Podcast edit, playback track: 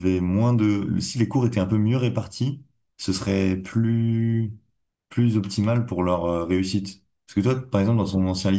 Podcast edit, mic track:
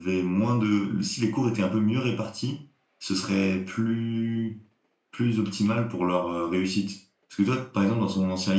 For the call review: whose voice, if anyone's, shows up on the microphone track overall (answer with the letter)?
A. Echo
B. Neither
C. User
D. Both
A